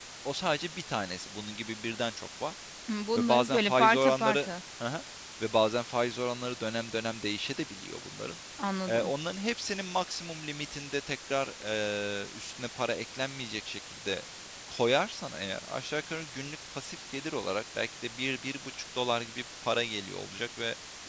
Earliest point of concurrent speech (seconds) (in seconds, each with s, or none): 3.1 s